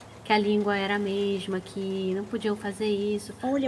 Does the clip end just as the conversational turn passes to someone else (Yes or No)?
Yes